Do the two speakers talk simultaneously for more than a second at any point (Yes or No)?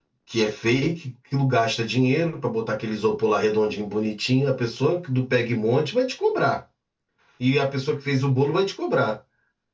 No